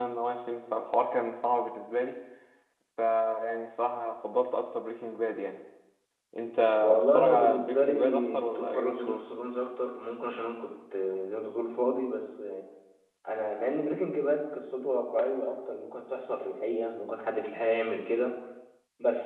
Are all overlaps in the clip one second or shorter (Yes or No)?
No